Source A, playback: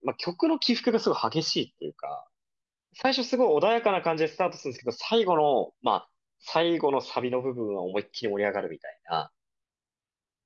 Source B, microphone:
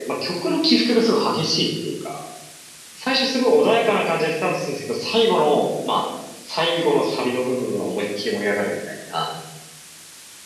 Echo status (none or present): present